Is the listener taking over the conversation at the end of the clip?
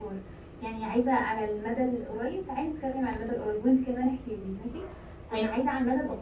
No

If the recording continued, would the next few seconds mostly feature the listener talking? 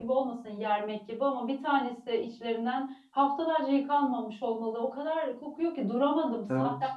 No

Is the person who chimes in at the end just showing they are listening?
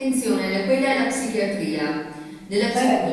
Yes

